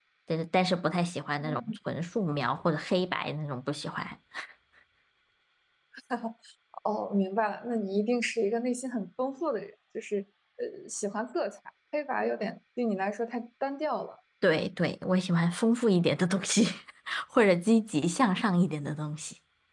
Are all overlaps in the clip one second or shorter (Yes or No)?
Yes